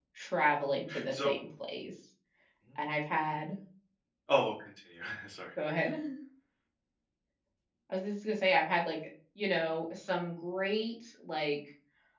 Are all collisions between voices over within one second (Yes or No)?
Yes